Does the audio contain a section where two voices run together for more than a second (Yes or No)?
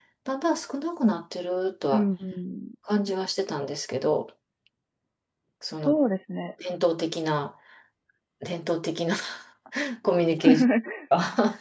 No